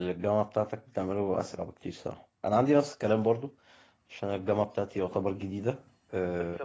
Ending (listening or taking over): taking over